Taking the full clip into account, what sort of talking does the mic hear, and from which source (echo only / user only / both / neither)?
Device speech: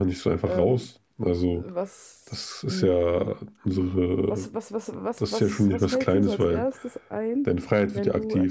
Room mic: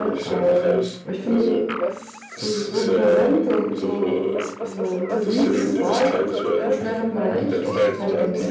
both